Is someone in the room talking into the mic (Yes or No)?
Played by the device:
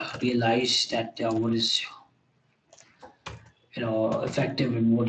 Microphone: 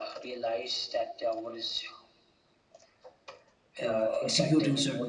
Yes